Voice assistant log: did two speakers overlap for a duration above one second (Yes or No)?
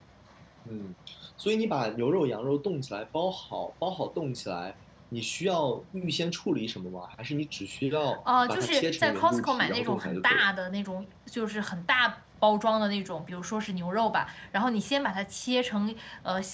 Yes